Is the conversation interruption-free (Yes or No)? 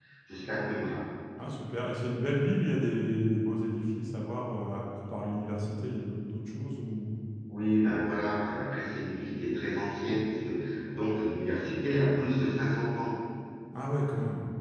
Yes